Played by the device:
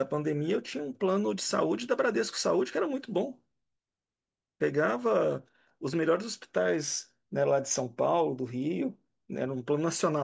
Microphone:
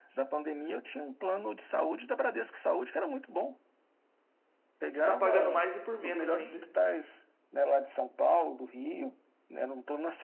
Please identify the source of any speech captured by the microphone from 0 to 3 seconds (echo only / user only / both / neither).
echo only